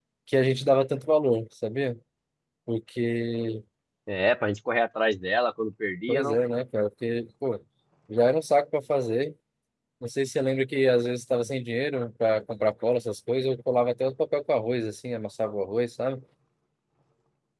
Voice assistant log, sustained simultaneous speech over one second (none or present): none